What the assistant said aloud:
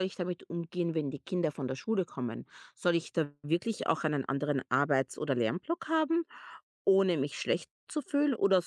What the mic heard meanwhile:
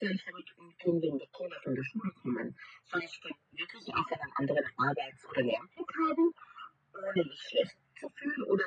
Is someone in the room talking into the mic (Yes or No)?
No